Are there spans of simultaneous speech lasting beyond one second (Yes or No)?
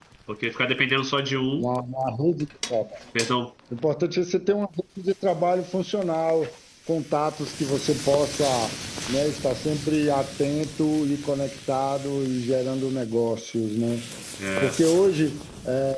No